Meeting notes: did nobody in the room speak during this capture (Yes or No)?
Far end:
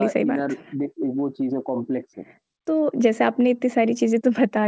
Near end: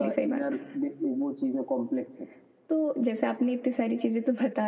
Yes